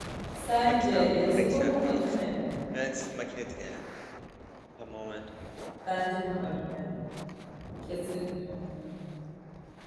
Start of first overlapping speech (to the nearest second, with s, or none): 1 s